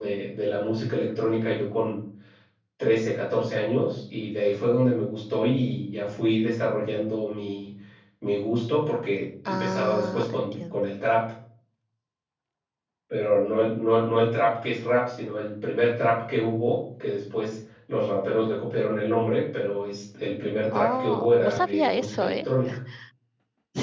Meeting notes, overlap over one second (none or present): present